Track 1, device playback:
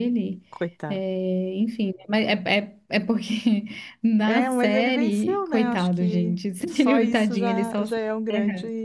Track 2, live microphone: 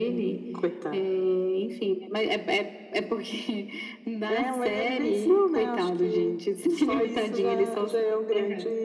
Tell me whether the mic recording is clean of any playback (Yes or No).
No